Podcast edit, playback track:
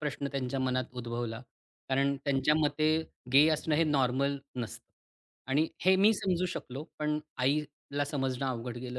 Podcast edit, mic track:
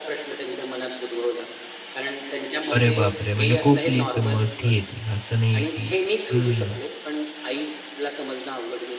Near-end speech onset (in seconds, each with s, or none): 2.7 s